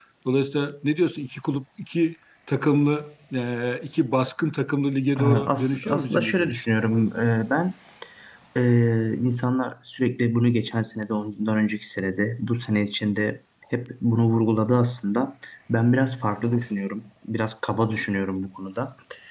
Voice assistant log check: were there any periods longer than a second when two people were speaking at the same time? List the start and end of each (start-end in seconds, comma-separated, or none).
5.2-6.6